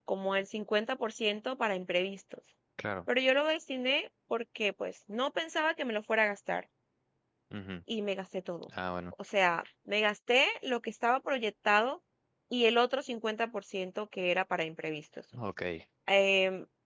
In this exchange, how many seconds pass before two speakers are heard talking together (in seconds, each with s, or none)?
none